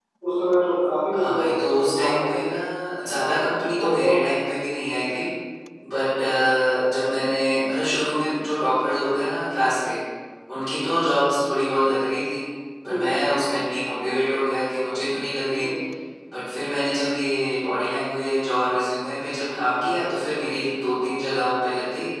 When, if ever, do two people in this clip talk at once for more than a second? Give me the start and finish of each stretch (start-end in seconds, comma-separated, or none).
1.1-2.4